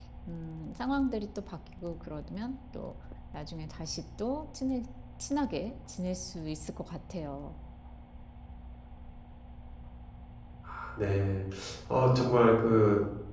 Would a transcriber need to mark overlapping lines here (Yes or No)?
No